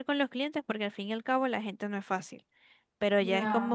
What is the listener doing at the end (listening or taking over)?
listening